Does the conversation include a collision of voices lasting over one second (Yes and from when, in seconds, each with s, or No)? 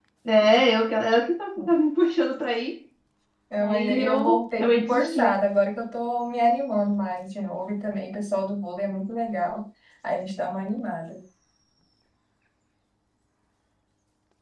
Yes, from 3.6 s